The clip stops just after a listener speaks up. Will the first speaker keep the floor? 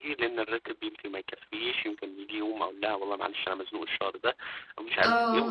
No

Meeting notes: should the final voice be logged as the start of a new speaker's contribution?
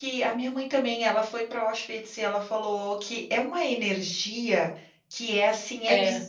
No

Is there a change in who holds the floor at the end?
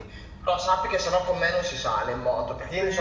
No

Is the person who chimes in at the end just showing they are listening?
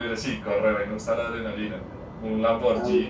Yes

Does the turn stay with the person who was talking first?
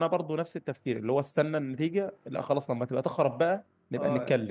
No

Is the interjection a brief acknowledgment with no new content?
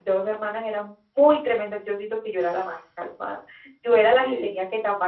Yes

